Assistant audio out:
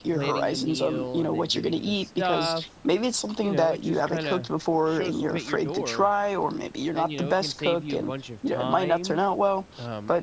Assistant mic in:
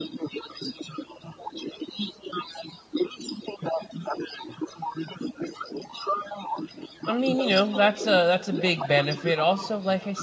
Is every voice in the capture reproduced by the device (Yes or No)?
No